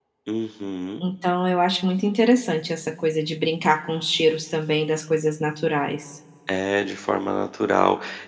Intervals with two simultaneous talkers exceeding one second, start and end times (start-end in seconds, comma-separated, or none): none